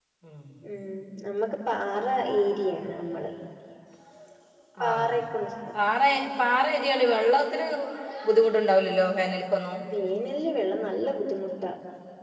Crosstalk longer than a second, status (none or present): none